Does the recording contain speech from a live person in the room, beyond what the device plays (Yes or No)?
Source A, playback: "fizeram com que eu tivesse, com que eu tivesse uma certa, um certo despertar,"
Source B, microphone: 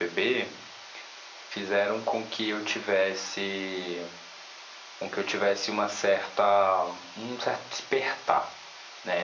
No